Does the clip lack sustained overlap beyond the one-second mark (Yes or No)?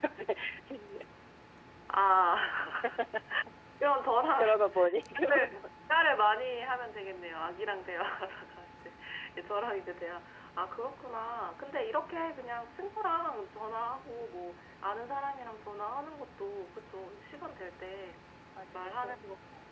Yes